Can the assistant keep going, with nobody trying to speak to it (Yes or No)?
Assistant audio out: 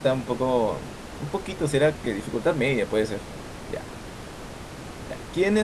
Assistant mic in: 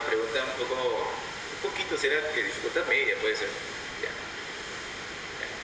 Yes